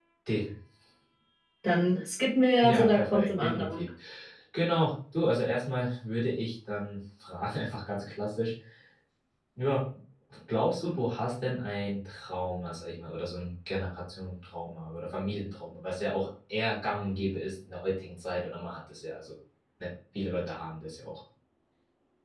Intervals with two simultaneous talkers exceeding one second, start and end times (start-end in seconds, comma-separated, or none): 2.6-3.8